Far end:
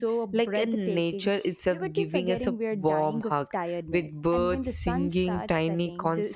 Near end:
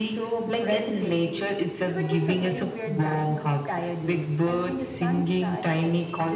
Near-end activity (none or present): none